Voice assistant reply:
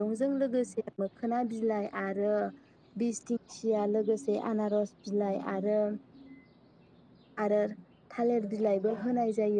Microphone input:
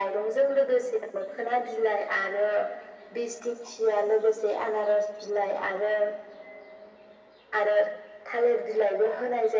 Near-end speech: none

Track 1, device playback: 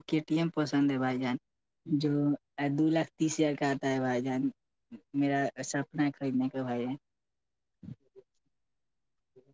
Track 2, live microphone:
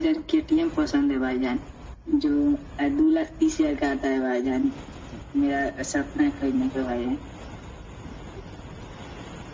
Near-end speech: none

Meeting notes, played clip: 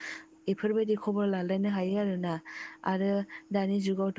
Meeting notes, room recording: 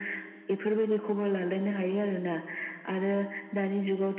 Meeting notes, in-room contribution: none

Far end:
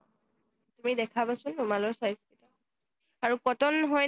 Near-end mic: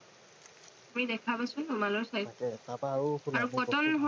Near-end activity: present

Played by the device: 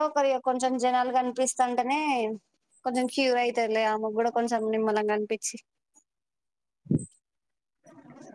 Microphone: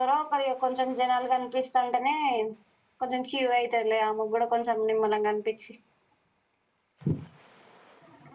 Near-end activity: none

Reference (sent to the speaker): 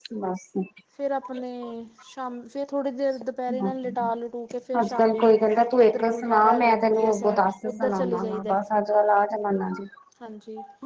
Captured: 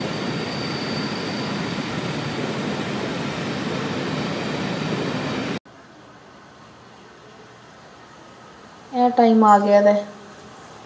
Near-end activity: present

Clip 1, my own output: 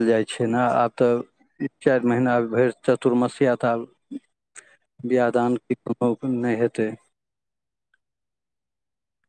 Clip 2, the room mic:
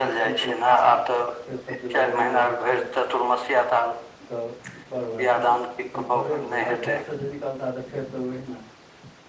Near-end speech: present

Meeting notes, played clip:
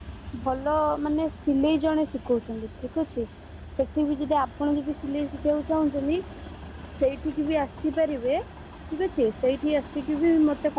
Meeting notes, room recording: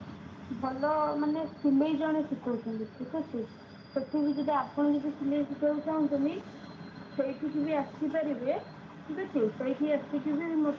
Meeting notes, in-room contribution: none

